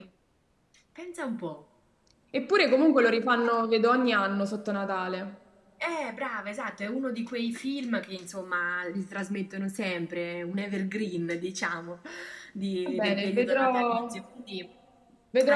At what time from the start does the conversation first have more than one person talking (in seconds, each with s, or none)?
12.9 s